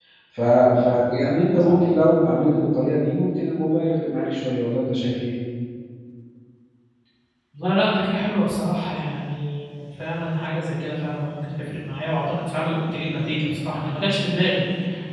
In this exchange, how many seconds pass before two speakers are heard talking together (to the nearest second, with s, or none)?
none